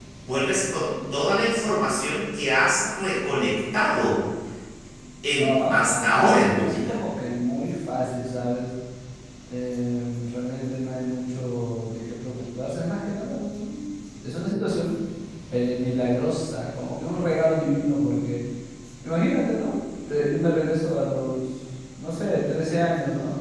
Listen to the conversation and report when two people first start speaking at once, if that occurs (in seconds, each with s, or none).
5.4 s